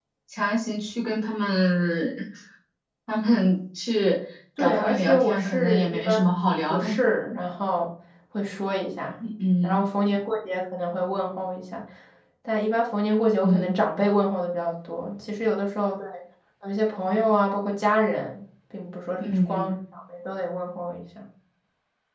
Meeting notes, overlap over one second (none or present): present